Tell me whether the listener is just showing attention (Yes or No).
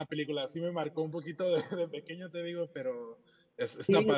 No